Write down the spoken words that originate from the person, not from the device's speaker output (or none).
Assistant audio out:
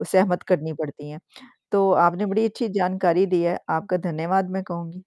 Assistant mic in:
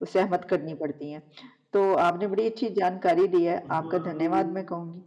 उसको उम,